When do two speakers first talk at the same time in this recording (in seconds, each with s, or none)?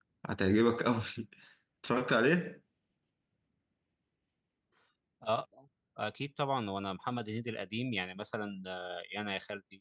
none